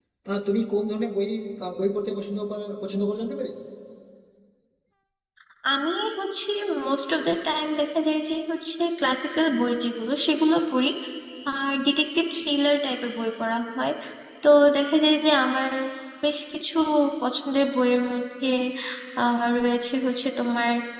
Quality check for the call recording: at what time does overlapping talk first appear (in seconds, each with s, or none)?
none